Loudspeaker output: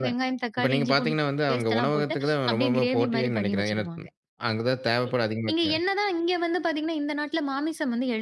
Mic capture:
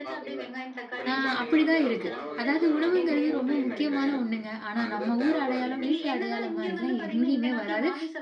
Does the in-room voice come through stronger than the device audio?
Yes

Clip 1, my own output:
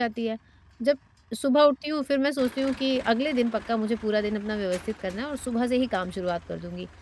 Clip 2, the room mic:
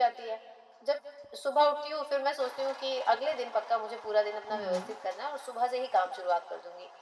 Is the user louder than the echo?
No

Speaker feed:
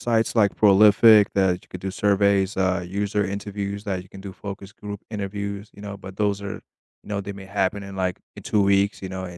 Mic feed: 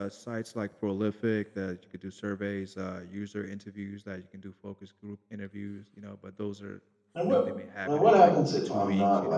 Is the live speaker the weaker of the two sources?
No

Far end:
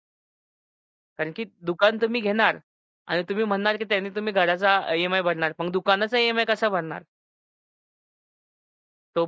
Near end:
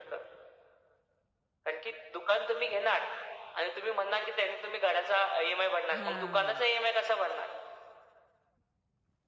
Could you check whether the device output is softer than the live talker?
No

